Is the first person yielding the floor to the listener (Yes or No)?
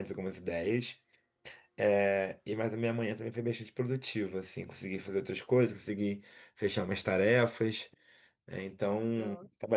No